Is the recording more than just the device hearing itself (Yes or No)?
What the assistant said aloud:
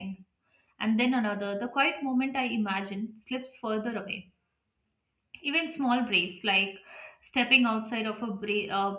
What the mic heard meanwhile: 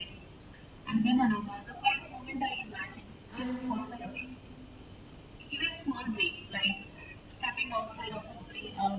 Yes